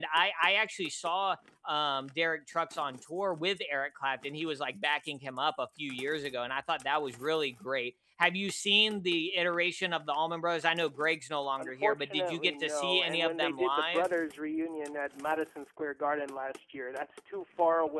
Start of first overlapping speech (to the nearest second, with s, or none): 12 s